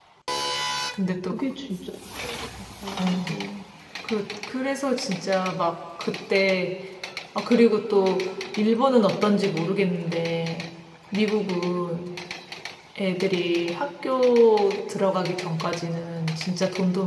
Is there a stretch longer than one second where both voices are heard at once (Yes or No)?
No